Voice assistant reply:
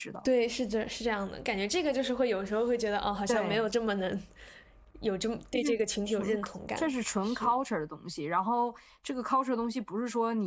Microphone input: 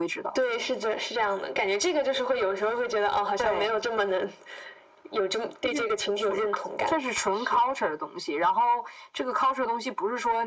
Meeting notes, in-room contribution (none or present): none